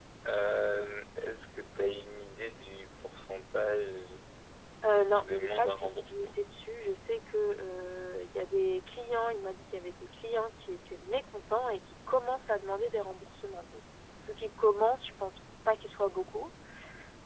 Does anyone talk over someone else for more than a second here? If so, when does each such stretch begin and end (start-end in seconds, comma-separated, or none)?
5.0-6.3